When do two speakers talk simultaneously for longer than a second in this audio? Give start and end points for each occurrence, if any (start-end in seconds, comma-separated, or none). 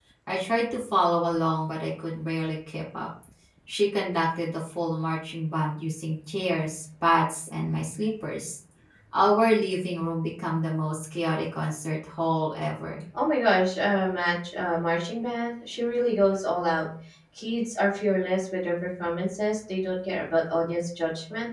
none